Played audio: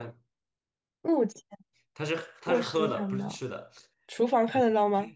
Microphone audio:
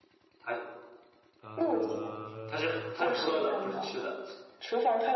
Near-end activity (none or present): present